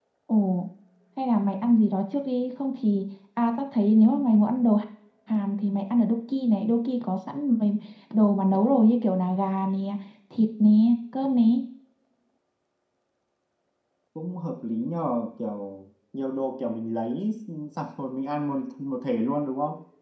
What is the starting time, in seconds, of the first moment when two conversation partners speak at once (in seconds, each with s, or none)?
none